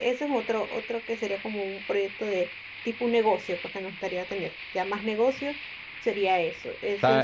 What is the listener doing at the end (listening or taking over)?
taking over